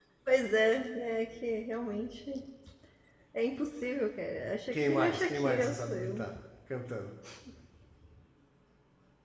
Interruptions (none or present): present